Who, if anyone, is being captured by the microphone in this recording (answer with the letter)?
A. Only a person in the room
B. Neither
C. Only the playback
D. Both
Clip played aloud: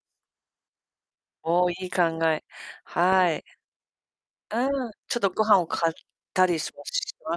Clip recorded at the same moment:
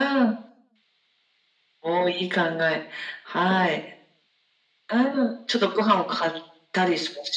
C